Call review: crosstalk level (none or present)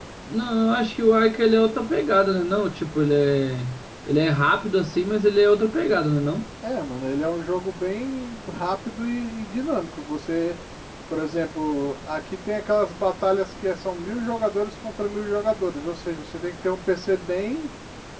none